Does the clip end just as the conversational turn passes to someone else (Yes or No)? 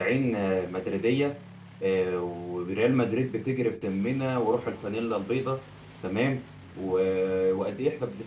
No